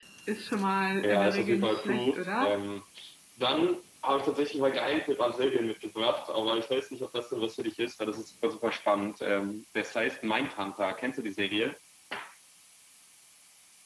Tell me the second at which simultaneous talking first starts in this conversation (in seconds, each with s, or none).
1.0 s